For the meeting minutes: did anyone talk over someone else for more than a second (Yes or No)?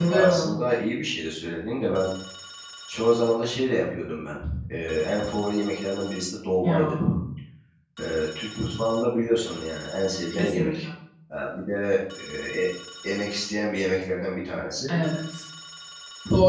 No